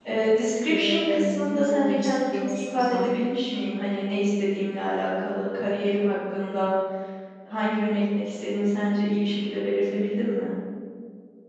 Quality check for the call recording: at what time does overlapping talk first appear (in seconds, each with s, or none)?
0.7 s